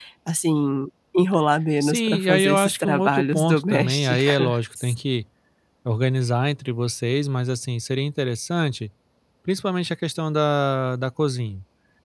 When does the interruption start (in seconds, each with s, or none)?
1.8 s